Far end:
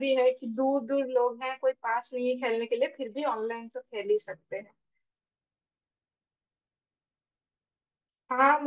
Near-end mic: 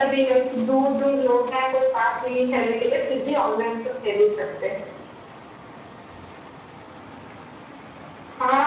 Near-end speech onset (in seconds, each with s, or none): none